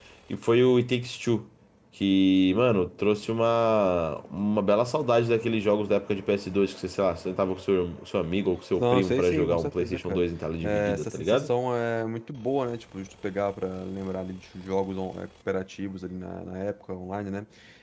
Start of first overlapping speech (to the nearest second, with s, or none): 9 s